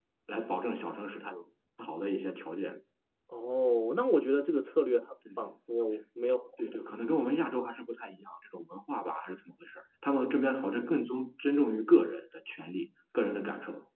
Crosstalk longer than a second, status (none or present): none